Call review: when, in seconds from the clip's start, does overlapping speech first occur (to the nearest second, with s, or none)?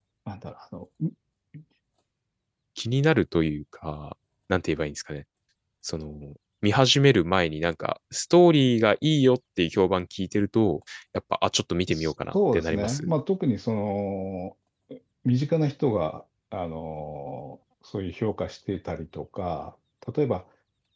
12 s